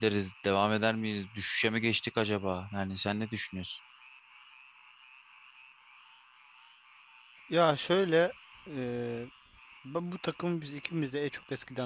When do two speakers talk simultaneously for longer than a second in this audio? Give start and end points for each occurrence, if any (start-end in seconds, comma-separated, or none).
none